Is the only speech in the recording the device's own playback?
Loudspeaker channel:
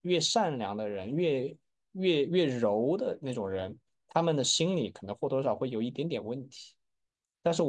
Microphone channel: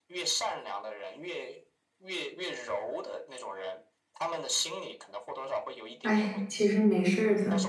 No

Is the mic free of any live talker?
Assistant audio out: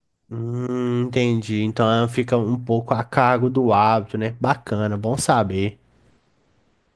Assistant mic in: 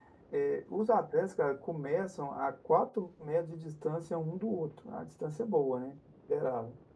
No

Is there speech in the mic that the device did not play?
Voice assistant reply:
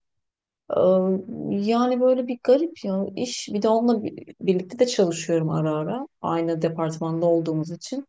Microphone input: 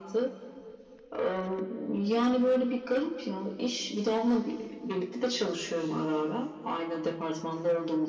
No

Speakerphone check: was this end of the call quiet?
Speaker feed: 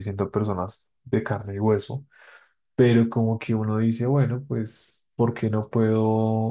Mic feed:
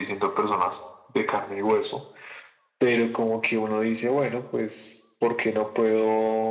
Yes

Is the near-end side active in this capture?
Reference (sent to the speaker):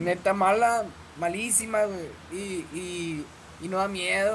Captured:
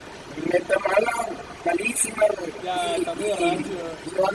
Yes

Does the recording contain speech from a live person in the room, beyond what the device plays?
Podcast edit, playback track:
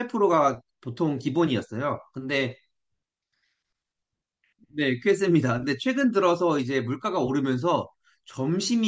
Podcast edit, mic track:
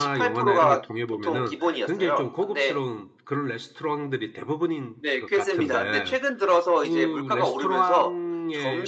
Yes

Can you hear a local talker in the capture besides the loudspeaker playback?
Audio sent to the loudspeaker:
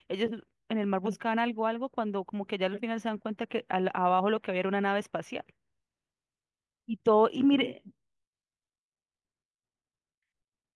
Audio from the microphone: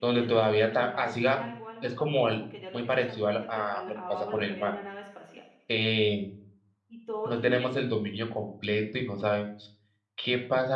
Yes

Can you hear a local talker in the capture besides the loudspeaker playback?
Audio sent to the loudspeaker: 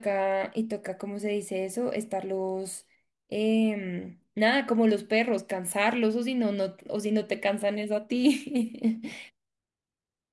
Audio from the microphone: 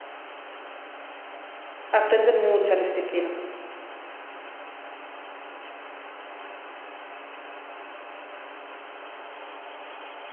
Yes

